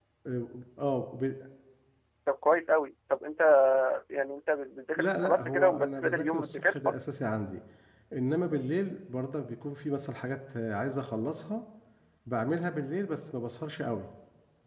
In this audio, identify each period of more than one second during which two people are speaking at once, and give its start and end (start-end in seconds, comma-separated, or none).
5.0-6.9